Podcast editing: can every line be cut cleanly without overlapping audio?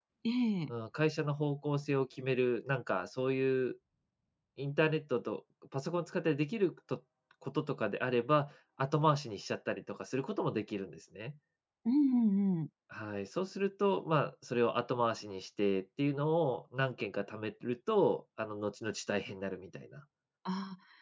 Yes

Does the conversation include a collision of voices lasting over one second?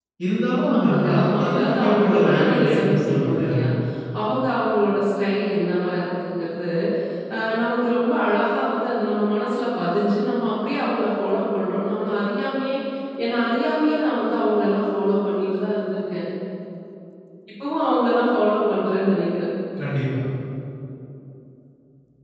Yes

